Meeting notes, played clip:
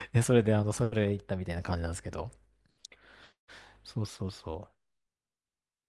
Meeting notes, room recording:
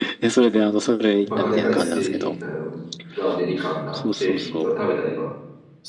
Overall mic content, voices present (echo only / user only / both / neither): both